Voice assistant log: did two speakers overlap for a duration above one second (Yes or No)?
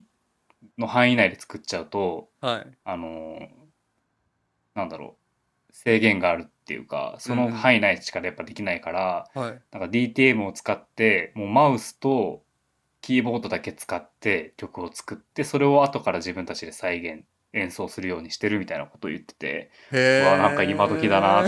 Yes